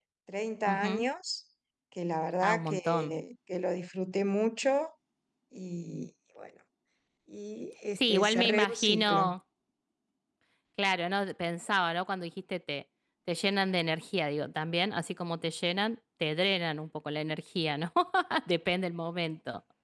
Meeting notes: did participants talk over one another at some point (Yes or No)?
Yes